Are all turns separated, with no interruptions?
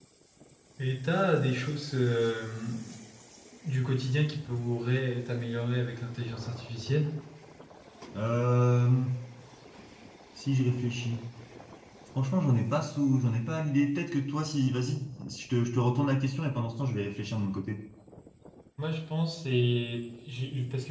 Yes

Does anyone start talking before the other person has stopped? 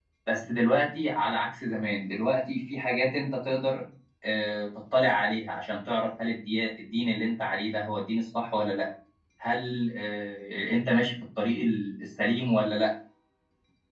No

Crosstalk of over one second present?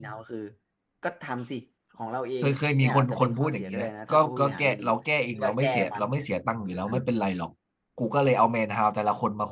Yes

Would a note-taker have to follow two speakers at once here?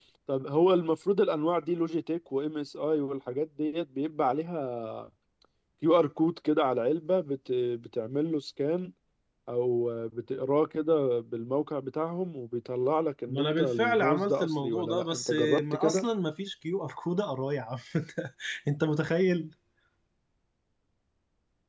Yes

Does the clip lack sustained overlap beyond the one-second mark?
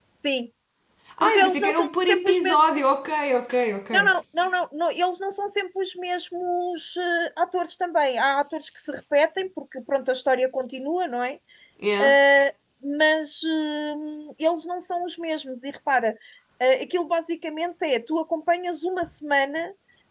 No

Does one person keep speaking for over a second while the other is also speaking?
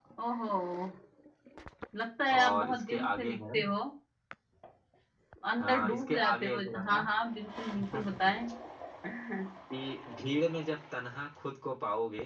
Yes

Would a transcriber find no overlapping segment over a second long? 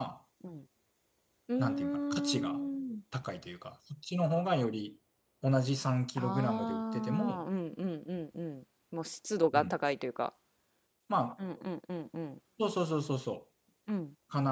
No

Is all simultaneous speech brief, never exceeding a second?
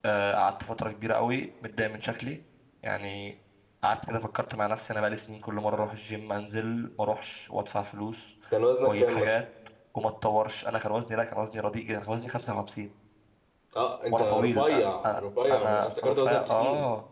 No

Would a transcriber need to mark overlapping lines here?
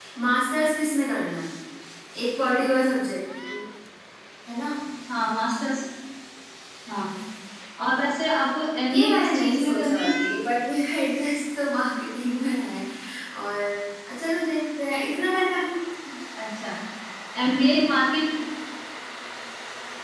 Yes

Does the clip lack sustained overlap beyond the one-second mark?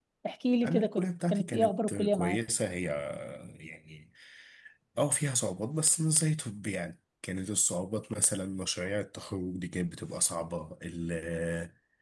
No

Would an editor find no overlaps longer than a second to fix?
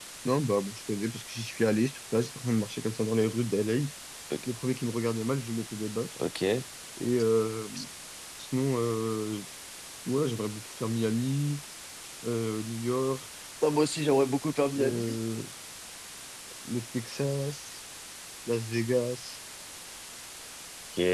Yes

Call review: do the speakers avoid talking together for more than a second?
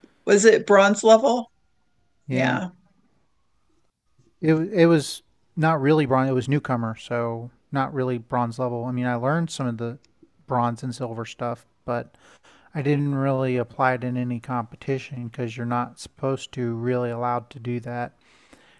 Yes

